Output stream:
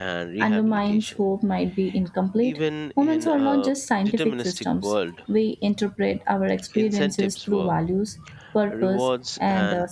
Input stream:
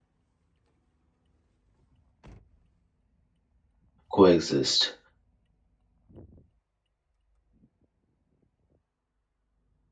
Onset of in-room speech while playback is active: 4.1 s

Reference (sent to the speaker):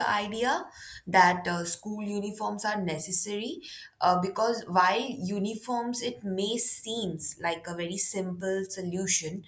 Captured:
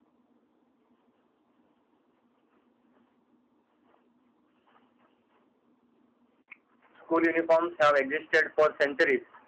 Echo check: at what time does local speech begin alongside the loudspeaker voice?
7.0 s

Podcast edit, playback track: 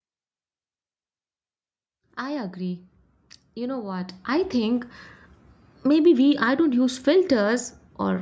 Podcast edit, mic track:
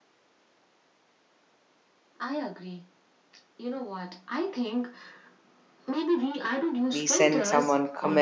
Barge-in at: 6.9 s

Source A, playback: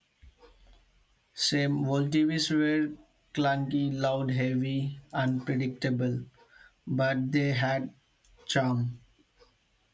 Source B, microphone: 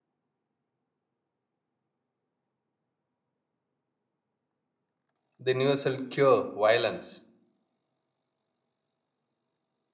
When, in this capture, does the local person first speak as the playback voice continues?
5.4 s

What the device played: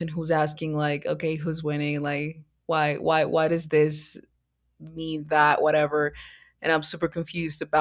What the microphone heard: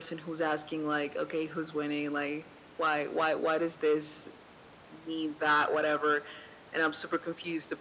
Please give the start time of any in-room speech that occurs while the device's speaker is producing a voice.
none

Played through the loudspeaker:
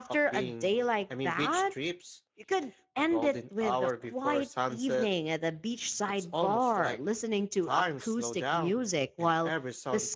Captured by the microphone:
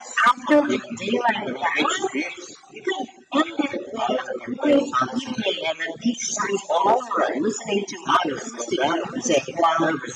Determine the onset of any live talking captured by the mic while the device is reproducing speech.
none

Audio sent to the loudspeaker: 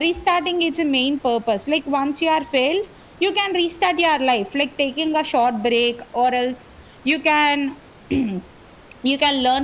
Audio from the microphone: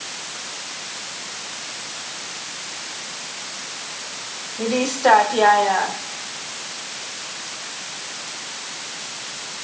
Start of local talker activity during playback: 4.6 s

